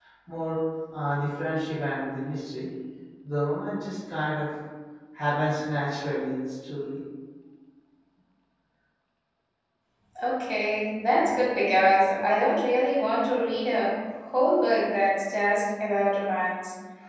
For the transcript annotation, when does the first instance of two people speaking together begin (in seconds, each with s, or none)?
none